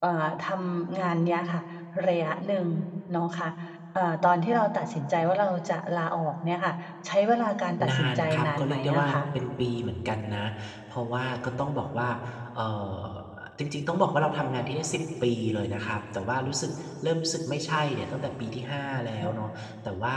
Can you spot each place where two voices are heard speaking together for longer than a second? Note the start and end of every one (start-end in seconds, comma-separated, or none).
7.9-9.2